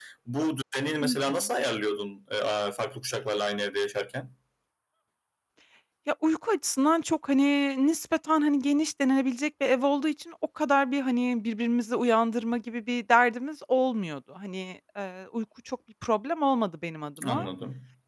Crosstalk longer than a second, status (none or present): none